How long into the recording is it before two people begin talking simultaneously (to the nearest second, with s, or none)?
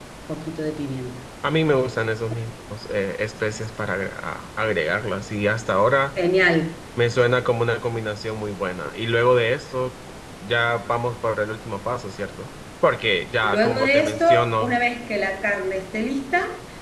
13 s